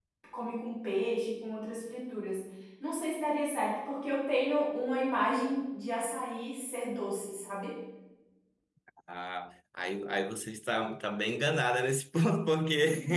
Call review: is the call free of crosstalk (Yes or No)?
Yes